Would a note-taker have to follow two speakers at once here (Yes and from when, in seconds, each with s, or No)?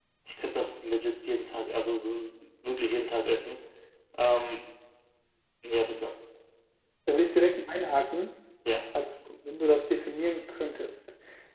No